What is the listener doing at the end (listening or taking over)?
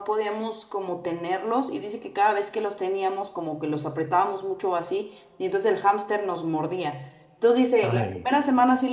listening